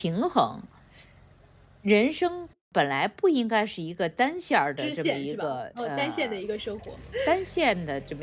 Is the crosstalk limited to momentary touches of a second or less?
No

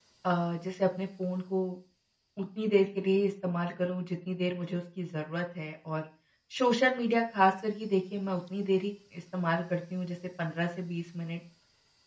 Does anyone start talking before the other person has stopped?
No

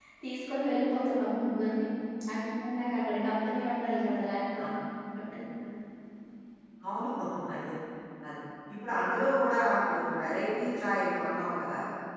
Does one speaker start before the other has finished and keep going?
No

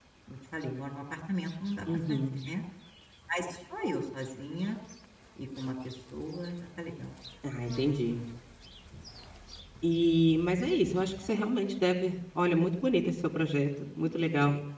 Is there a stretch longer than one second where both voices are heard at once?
No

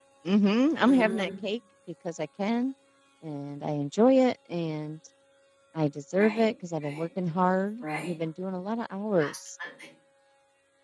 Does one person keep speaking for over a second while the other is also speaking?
No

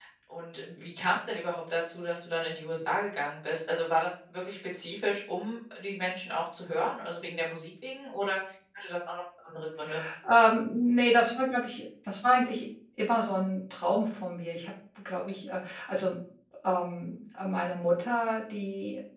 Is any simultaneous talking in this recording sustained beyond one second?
No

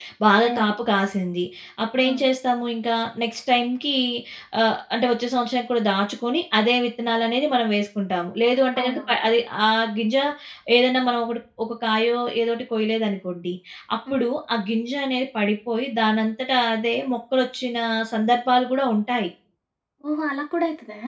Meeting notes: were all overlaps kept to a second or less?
Yes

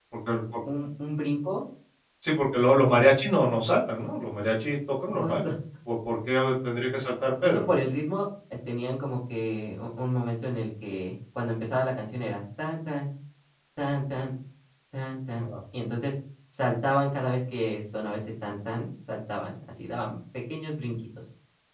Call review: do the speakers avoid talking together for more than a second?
Yes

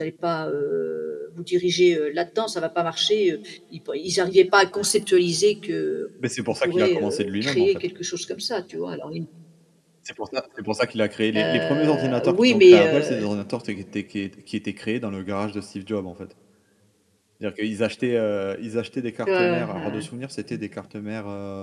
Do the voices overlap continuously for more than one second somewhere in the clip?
Yes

